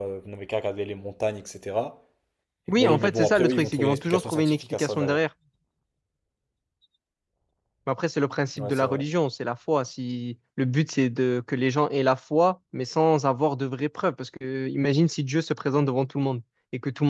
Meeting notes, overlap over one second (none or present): present